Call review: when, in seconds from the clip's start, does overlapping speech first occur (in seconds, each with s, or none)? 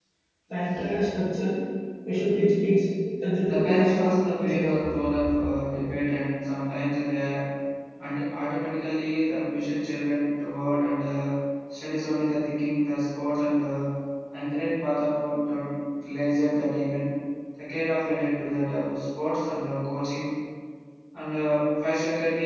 3.5 s